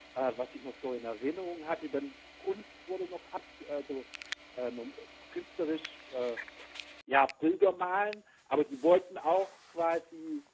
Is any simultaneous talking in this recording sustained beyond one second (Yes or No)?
No